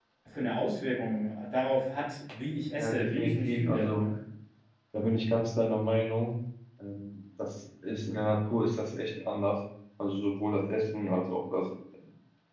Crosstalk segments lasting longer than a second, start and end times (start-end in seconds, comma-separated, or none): 2.7-4.0